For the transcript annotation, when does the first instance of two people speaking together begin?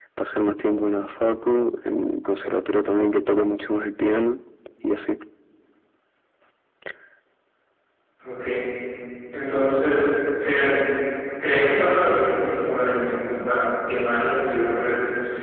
none

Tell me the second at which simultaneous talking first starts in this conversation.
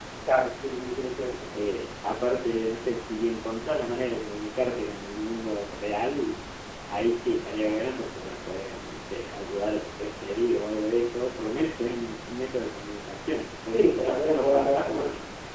14 s

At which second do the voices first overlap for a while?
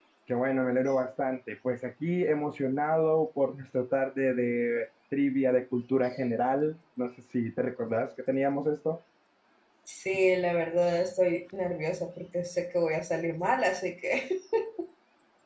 none

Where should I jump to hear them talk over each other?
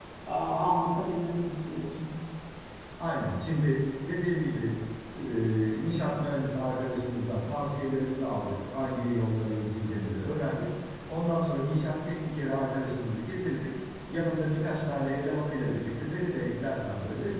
none

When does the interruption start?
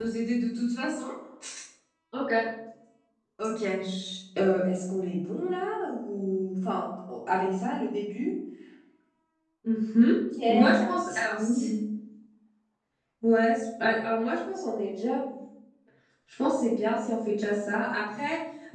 10 s

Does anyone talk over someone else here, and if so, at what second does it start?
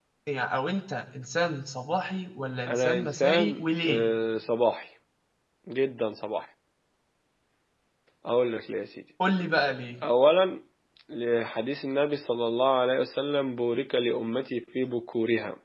3 s

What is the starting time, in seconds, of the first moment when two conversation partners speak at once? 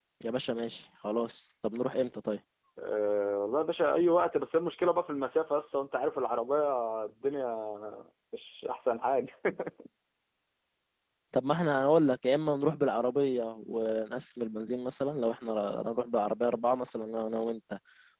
none

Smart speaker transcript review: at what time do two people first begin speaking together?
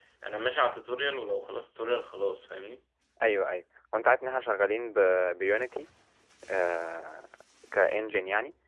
none

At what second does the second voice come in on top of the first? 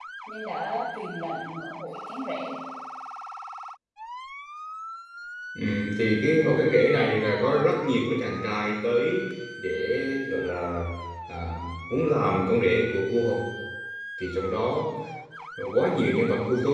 none

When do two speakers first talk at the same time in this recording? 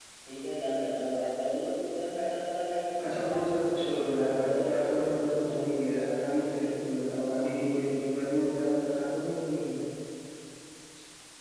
3 s

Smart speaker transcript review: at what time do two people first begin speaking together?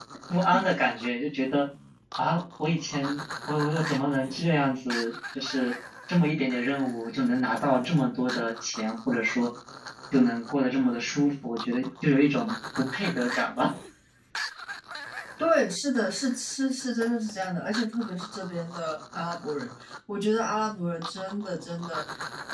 none

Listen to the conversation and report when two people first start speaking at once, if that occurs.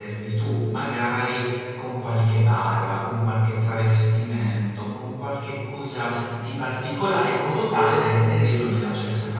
none

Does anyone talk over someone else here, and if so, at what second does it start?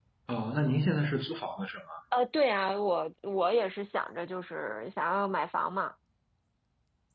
none

